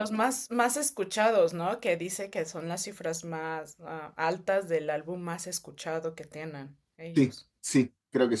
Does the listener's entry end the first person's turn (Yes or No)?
Yes